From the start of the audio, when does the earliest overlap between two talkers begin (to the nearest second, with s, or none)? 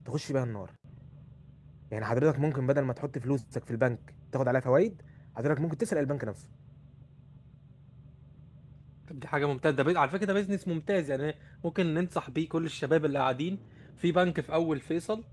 none